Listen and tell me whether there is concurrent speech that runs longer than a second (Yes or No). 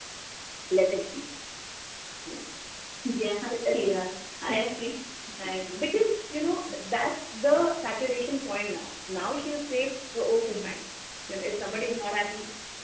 No